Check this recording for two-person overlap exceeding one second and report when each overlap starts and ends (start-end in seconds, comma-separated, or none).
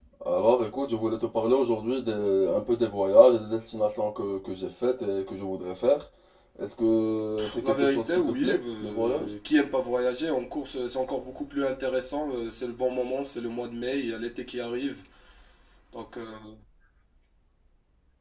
7.4-9.3